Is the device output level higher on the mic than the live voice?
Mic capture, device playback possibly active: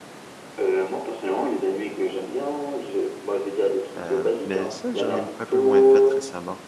Yes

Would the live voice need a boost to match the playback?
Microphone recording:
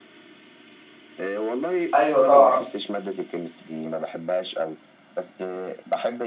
No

